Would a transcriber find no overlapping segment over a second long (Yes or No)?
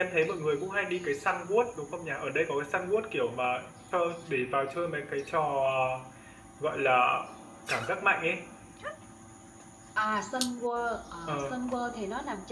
Yes